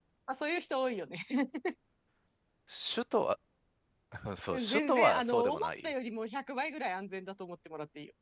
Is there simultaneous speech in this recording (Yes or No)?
Yes